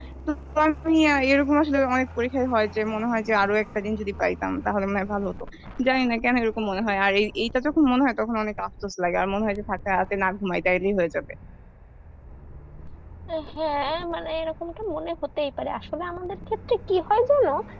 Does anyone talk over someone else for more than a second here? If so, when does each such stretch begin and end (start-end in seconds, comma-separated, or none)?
none